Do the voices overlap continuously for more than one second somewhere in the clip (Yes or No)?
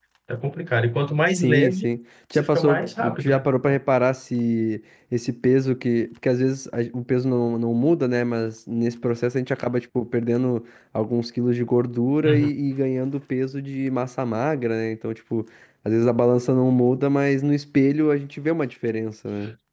Yes